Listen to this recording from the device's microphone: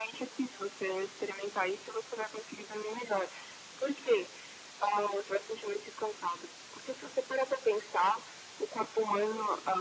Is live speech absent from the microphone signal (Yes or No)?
Yes